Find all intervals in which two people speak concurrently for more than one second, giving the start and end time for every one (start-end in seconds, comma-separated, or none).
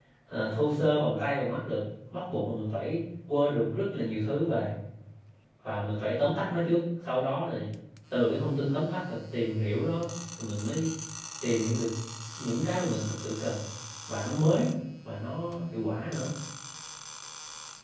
none